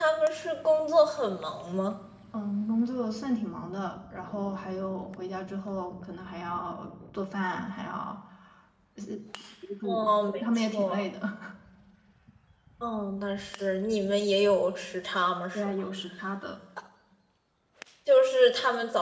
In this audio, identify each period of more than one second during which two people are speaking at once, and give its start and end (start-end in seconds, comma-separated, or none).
9.8-11.0